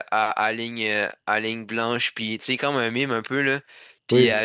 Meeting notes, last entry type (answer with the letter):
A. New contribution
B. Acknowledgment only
B